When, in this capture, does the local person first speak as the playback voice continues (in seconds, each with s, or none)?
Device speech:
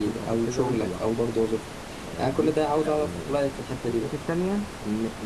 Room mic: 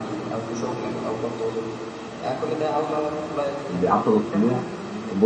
3.7 s